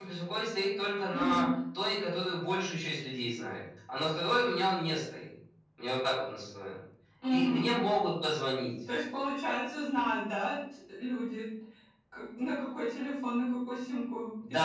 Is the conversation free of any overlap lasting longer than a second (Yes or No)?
Yes